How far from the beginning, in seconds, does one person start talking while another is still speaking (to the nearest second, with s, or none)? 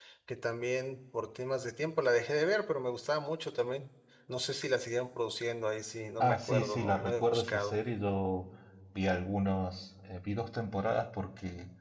6 s